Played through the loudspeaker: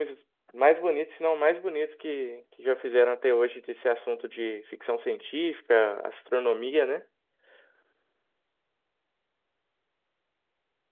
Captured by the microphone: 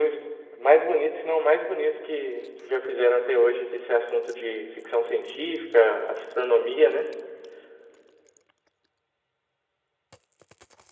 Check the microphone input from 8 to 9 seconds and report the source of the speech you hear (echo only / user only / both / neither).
neither